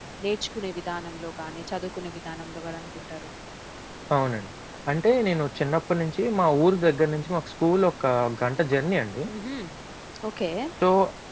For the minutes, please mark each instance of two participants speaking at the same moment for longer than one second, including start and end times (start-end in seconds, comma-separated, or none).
none